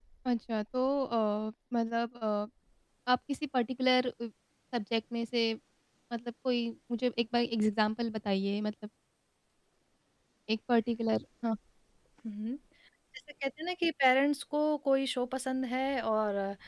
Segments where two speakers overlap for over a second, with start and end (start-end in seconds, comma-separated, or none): none